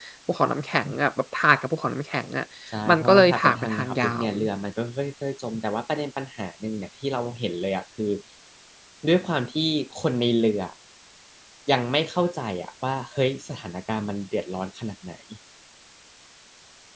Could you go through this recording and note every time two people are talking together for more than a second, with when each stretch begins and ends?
2.9-4.3

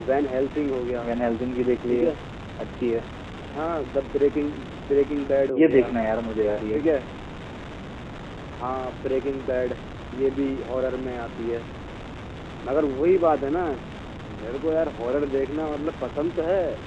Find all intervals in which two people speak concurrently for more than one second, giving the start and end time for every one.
none

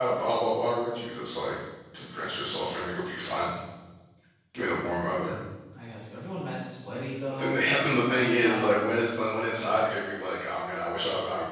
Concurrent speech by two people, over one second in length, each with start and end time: 7.3-8.8

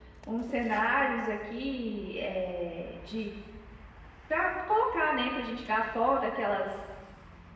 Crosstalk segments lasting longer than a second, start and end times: none

